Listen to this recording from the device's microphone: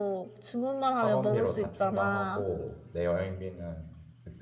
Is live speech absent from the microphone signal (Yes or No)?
No